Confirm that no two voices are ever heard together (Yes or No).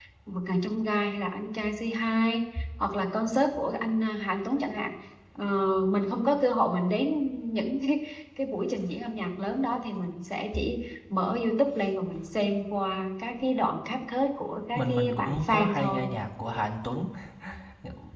No